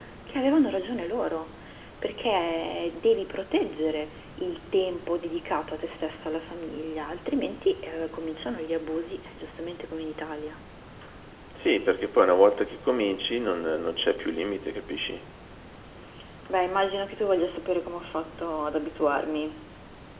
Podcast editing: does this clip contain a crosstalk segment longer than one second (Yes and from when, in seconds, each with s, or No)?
No